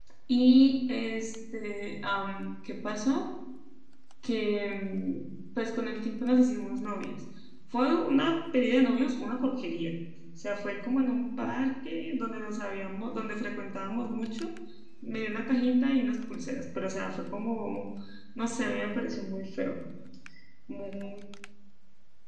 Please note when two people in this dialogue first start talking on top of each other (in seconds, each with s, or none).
none